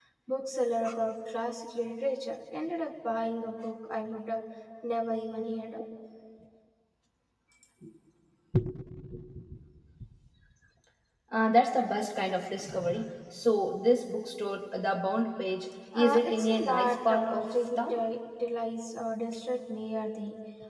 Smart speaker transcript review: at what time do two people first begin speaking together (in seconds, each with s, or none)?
15.9 s